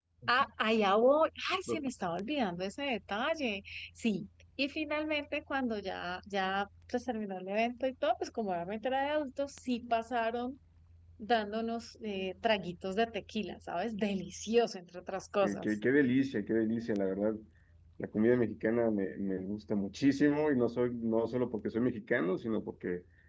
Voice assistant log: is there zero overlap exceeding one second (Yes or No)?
Yes